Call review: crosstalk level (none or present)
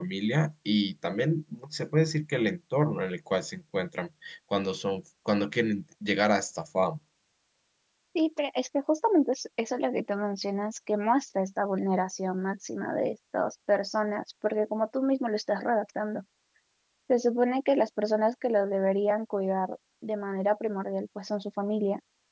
none